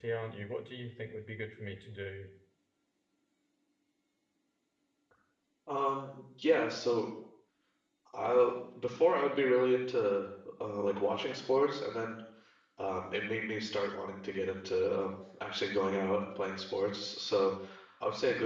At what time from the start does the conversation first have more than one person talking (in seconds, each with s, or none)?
none